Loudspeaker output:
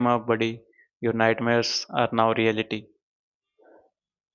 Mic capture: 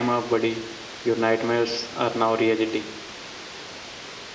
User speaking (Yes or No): No